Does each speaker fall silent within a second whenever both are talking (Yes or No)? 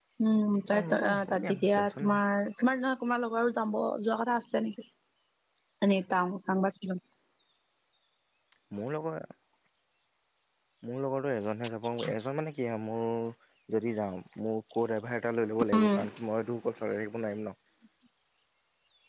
No